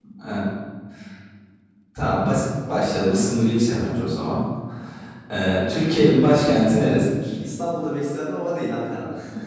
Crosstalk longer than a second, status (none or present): none